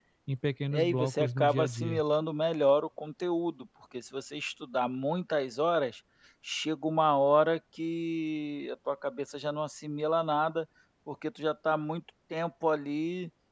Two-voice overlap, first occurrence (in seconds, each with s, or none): 0.7 s